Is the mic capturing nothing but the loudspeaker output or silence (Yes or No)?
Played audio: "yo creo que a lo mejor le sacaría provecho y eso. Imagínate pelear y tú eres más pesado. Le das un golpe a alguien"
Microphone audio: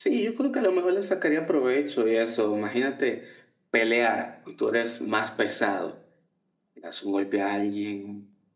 Yes